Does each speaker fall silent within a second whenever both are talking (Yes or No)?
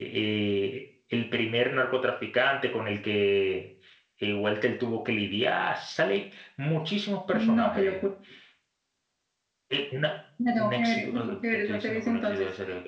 No